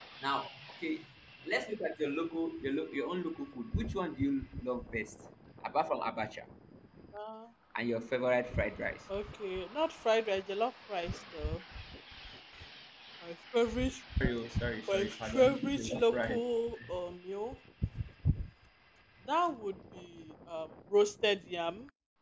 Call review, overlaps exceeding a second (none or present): present